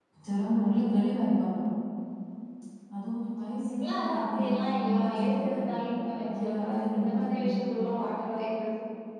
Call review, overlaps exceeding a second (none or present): present